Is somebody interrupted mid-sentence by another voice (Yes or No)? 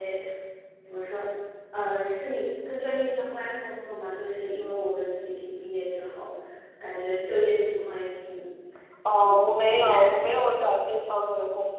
Yes